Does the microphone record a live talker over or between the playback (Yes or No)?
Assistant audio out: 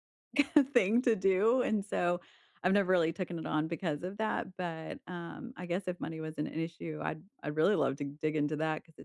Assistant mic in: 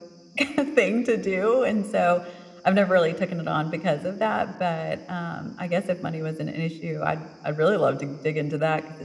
No